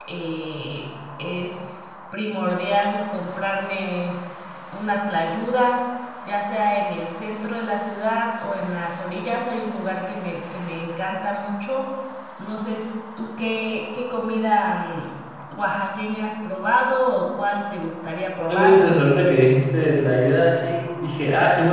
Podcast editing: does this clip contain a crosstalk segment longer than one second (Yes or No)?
No